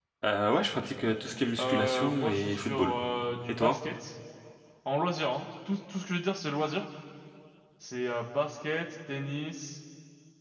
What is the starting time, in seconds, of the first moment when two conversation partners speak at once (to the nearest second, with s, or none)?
2 s